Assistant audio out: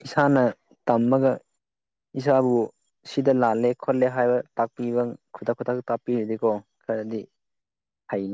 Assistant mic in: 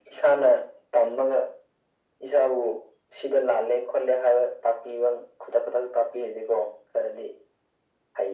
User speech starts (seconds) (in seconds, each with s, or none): none